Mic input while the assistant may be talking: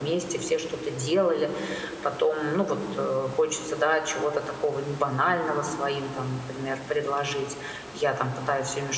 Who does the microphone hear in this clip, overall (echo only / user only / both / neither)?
echo only